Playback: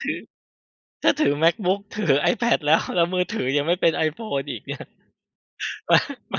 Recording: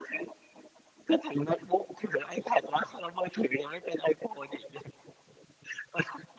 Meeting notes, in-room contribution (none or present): none